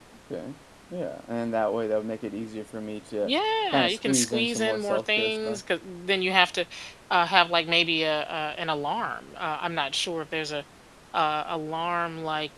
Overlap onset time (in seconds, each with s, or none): 3.7 s